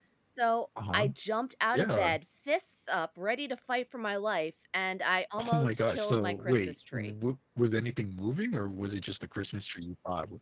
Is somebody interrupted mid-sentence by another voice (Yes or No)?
Yes